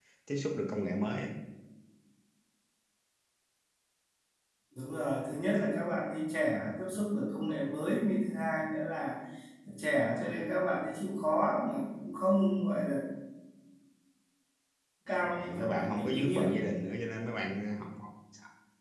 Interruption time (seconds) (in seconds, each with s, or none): 15.2 s